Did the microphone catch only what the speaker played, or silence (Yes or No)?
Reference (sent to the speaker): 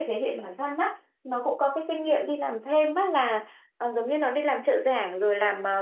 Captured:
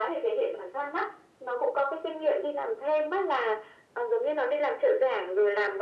Yes